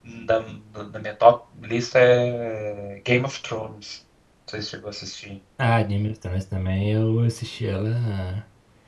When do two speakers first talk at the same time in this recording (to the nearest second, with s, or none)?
none